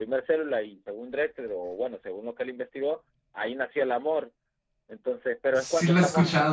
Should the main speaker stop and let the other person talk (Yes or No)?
Yes